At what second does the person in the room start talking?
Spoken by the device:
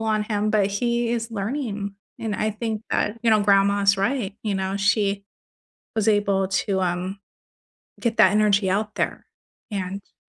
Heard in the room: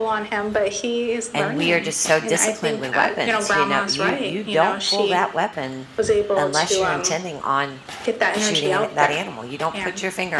1.3 s

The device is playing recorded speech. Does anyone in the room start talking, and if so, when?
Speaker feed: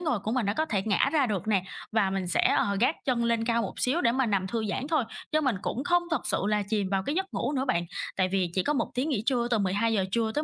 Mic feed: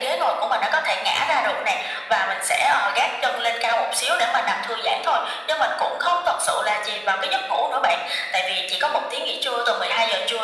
none

